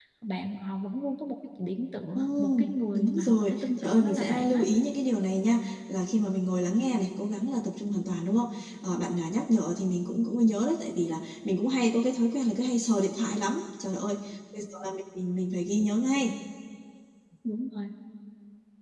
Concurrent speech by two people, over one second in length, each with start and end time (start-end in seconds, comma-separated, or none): 2.1-4.6